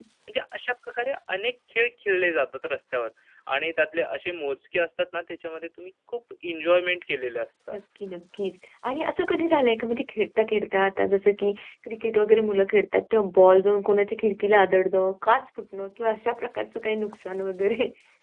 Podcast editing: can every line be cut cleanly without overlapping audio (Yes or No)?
Yes